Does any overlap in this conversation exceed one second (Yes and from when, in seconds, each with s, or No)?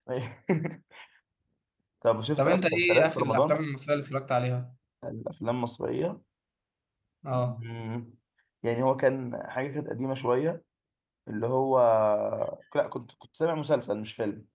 Yes, from 2.4 s